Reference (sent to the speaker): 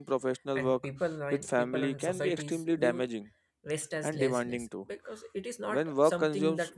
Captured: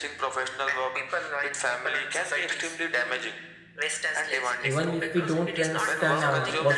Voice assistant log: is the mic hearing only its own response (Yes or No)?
No